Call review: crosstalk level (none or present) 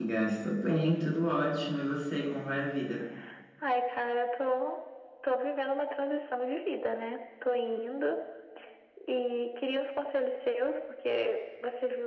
none